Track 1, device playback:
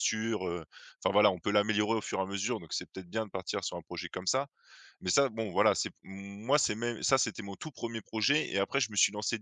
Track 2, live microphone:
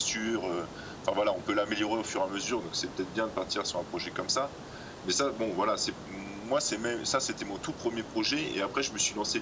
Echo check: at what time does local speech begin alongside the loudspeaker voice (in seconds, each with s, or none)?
none